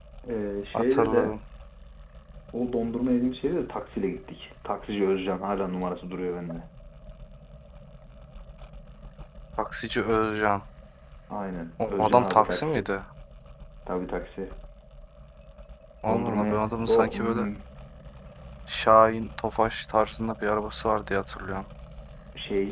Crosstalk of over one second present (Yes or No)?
Yes